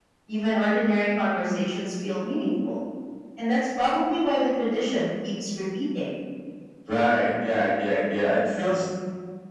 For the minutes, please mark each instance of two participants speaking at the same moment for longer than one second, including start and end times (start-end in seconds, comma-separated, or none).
none